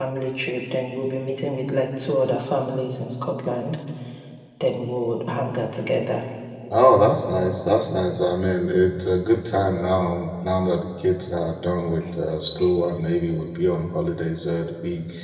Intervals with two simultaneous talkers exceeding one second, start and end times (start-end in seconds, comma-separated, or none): none